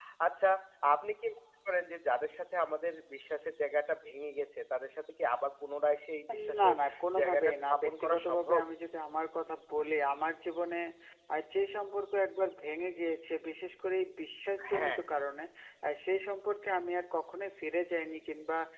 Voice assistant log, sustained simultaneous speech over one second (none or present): present